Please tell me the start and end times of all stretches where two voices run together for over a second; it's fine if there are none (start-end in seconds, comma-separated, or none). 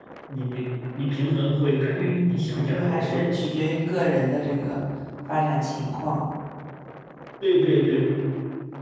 2.0-3.4